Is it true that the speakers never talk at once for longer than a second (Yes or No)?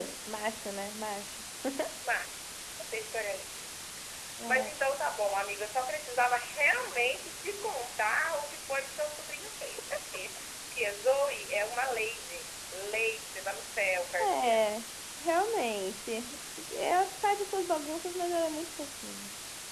Yes